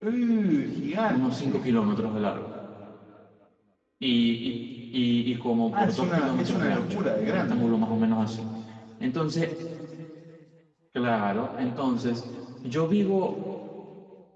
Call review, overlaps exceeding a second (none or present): present